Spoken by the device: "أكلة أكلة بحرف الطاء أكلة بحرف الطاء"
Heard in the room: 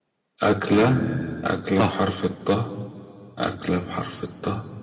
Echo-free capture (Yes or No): No